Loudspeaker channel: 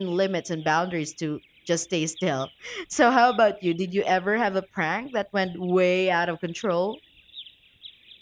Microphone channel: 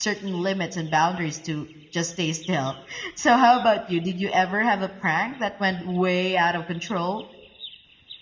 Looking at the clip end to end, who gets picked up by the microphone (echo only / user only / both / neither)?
echo only